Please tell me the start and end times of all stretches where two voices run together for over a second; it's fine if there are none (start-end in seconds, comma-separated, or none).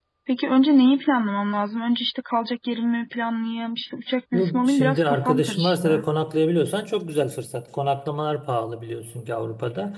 4.3-6.0